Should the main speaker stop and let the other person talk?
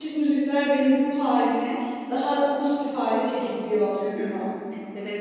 Yes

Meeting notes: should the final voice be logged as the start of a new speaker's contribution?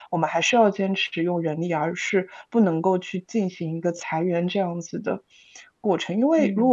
No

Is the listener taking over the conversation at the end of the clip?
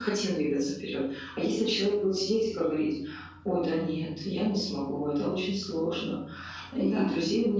No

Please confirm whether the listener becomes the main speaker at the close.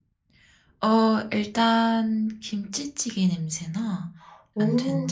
No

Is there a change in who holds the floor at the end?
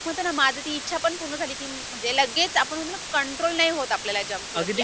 Yes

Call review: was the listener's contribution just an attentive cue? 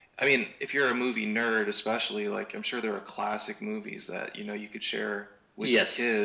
No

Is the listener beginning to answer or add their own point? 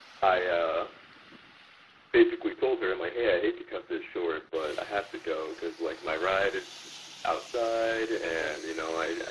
No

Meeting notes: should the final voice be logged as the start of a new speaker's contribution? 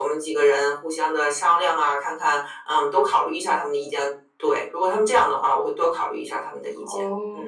Yes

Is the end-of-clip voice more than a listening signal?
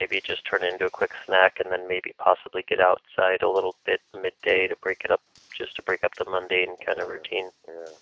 Yes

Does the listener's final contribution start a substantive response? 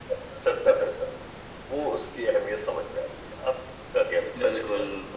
Yes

